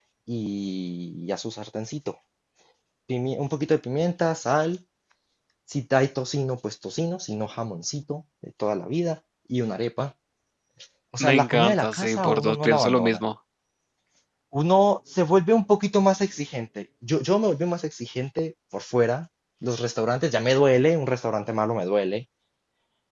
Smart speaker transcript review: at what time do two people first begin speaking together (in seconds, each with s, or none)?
11.2 s